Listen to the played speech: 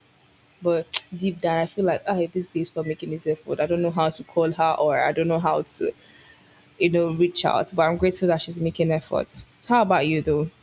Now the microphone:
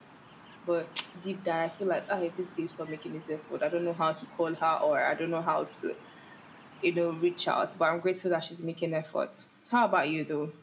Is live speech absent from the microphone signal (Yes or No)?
Yes